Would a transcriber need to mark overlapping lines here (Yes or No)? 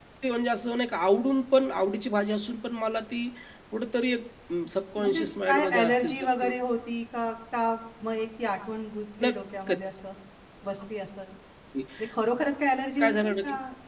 Yes